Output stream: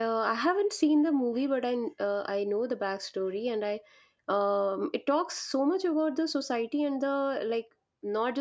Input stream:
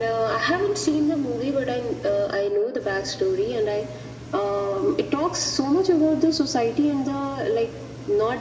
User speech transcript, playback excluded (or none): none